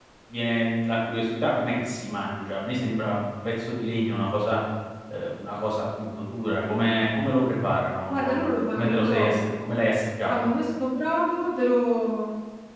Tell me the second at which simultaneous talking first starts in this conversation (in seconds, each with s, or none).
8.1 s